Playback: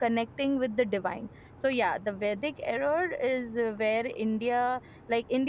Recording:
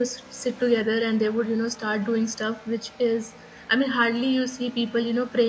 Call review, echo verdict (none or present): none